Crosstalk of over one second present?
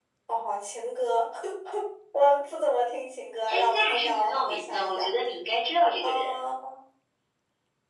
Yes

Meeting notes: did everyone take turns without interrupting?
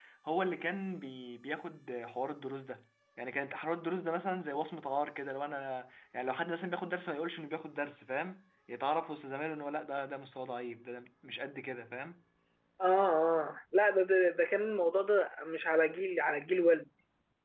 Yes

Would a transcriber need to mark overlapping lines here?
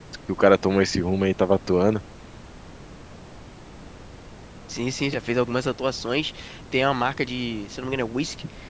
No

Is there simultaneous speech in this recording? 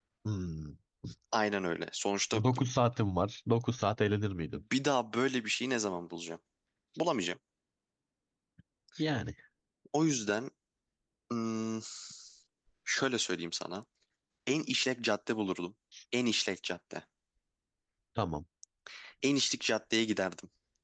No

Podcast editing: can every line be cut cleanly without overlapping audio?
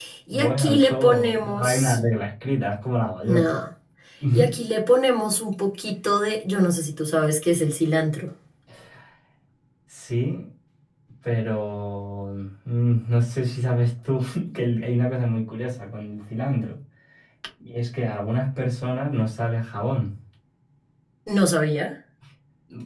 No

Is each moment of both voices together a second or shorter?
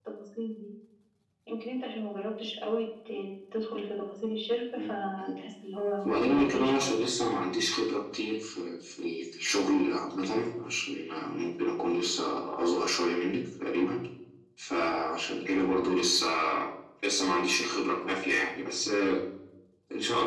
No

